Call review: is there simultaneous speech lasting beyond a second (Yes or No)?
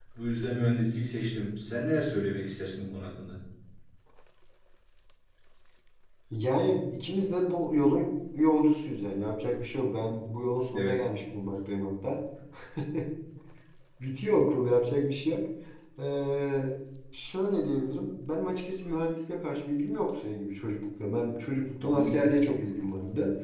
No